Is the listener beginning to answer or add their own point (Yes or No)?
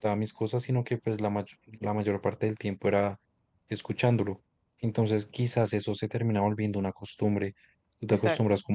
No